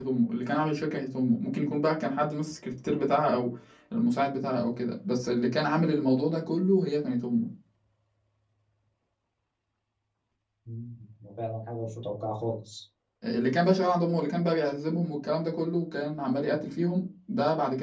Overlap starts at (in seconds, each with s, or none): none